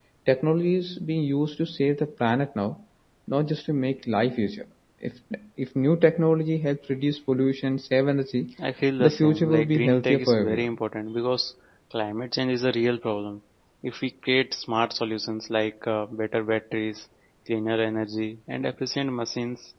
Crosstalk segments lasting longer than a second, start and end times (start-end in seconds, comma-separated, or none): 9.0-10.7